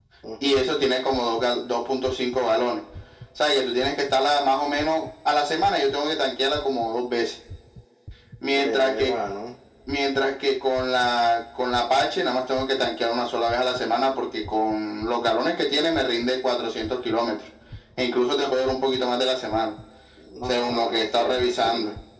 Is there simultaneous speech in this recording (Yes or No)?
Yes